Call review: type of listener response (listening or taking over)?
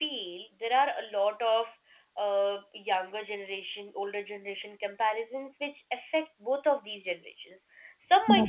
listening